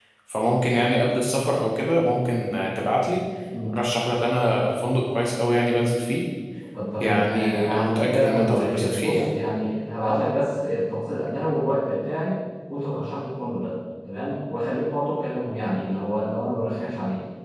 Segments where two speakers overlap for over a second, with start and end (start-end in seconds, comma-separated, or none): 7.0-9.3